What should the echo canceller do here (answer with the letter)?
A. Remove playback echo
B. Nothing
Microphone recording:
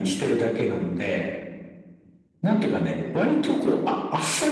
A